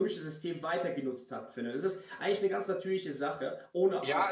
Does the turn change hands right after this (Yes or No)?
Yes